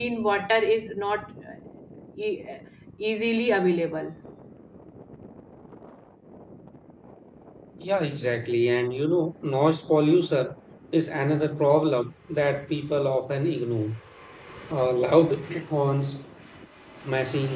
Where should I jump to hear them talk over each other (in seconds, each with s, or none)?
none